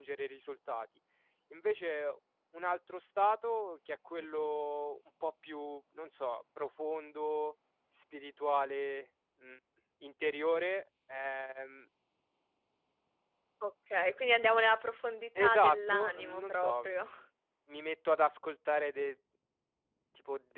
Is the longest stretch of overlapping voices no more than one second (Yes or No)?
No